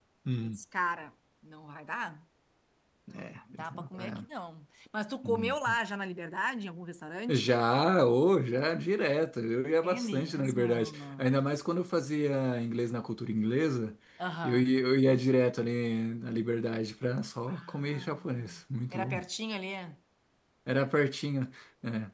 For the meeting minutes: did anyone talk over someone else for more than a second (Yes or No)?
Yes